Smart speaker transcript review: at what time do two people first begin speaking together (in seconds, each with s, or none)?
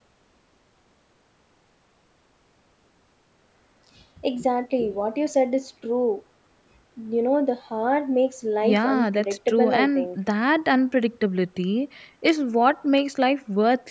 8.6 s